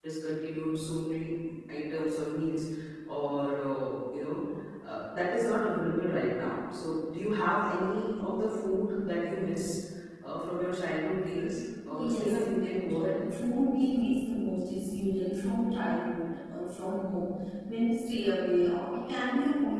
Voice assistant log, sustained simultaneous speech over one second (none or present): present